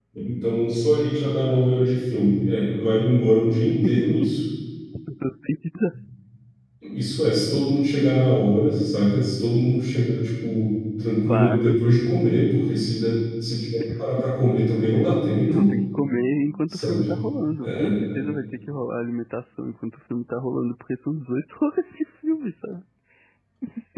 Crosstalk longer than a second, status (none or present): none